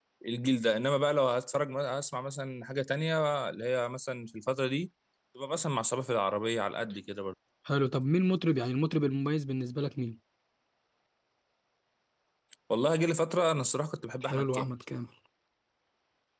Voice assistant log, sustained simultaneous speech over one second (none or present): none